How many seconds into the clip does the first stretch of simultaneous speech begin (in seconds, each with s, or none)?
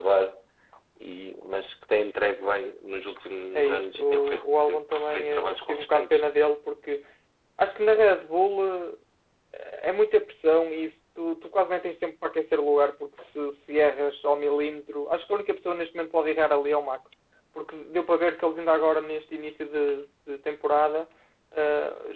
3.5 s